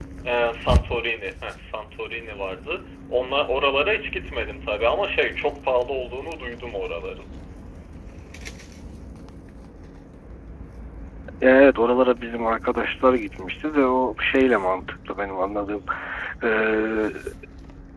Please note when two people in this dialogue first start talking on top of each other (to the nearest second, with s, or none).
none